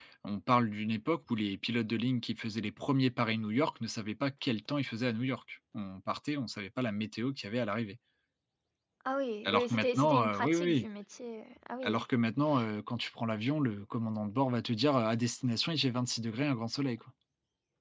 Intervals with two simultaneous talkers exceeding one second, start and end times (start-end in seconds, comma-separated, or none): 9.4-10.9